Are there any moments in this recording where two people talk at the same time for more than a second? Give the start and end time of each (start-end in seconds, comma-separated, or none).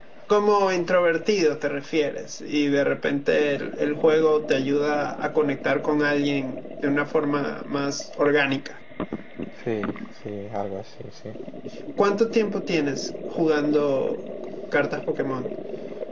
none